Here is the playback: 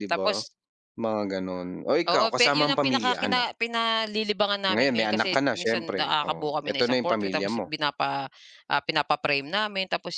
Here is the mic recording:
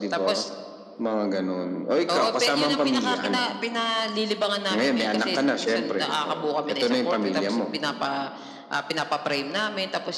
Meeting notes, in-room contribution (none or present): none